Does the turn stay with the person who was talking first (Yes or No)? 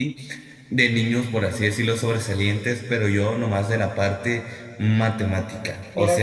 No